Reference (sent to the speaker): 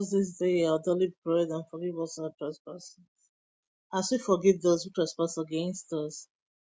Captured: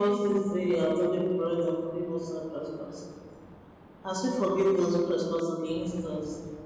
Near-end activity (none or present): none